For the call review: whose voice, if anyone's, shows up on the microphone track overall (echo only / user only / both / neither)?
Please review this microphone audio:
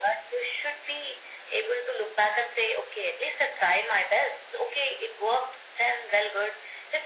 echo only